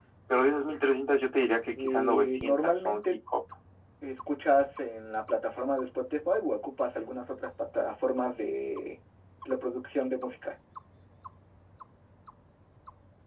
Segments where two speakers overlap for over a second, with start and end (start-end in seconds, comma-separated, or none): 1.8-3.0